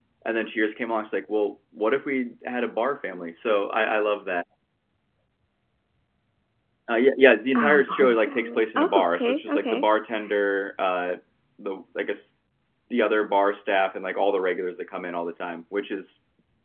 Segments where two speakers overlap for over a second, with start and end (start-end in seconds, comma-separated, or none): 7.5-9.8